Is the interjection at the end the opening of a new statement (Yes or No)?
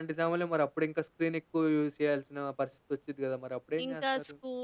Yes